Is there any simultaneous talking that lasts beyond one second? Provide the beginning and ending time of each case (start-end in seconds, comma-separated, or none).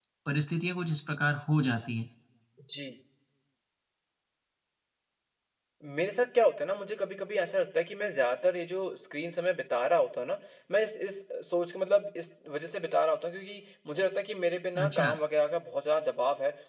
none